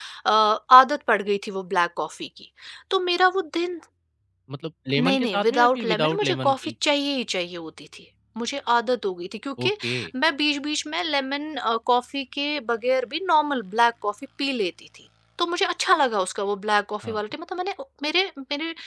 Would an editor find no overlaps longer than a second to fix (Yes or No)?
No